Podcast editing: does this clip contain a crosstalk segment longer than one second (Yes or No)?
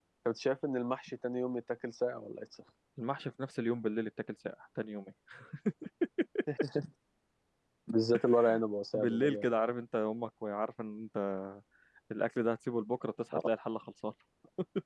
No